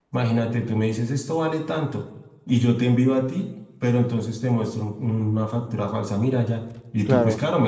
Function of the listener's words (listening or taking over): listening